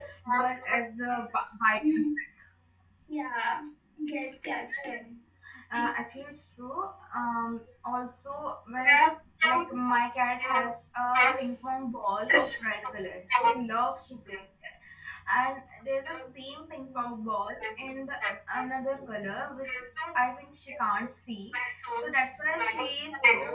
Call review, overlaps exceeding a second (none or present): none